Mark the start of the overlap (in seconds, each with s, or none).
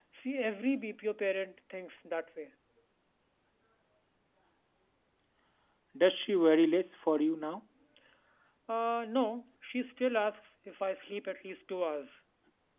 none